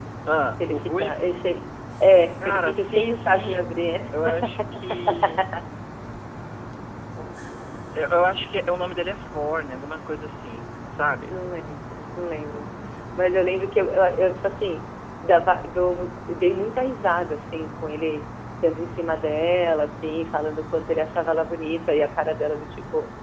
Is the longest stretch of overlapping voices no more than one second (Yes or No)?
No